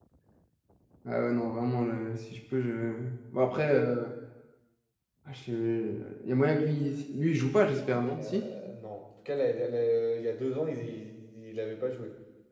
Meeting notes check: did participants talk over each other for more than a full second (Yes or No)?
No